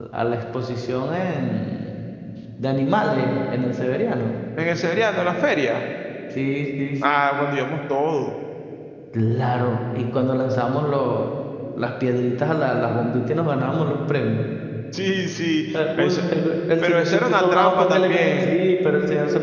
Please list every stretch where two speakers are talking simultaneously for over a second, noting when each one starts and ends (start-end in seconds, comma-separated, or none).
16.8-18.5